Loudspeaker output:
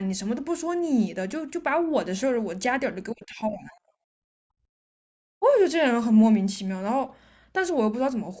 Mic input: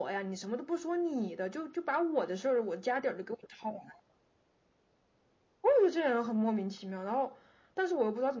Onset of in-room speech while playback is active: none

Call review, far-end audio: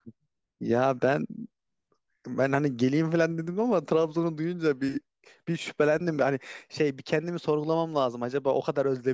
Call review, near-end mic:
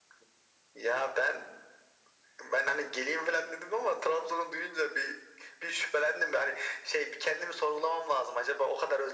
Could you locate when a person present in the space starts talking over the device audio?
none

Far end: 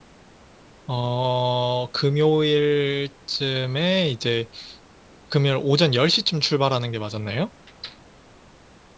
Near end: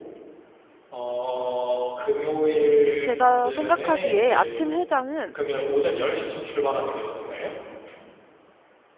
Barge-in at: 3.0 s

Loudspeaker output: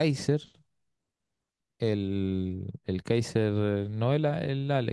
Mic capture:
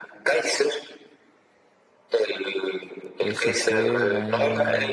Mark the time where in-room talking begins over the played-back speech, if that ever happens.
3.2 s

